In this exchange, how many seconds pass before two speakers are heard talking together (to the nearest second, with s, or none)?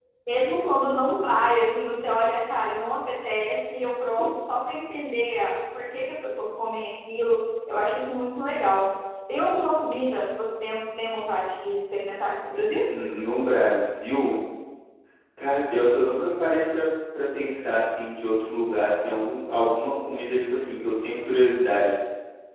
none